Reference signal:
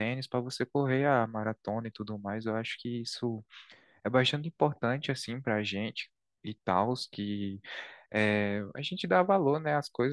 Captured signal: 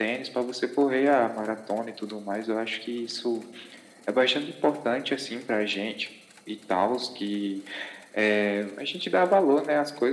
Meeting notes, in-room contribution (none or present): none